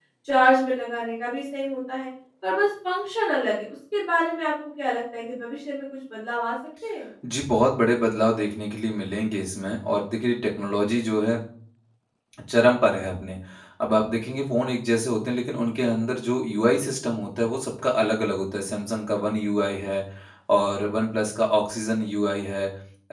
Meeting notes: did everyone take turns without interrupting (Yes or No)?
Yes